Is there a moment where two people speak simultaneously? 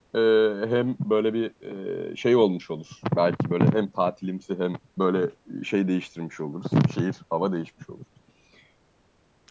No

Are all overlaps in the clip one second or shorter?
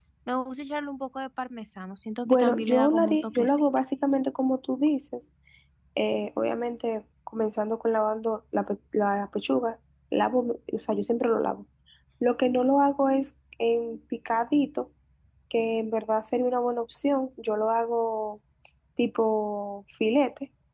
No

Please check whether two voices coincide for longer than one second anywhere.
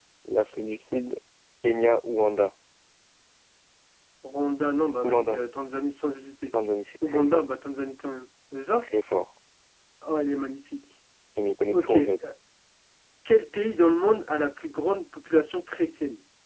No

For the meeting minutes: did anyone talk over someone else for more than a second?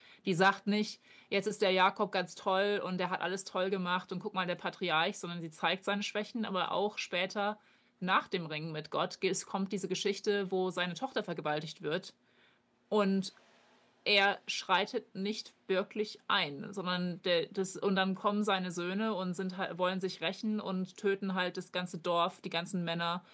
No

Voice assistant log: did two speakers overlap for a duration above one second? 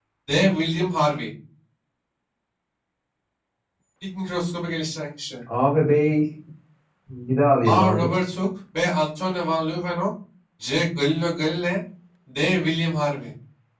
No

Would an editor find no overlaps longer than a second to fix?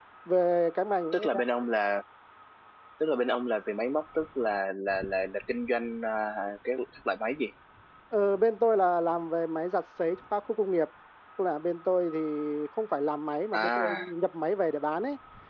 Yes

